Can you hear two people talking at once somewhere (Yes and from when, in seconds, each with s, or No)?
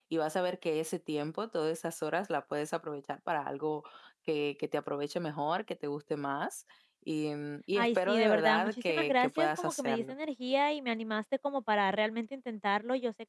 Yes, from 7.8 s